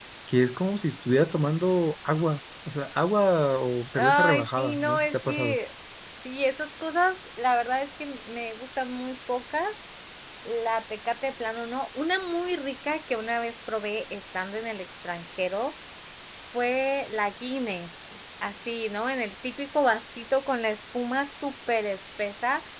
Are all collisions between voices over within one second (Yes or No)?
No